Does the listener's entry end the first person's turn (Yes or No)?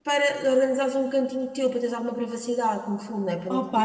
Yes